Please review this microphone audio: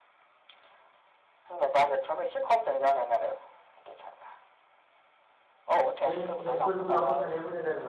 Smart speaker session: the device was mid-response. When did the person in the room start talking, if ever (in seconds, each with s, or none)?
6.0 s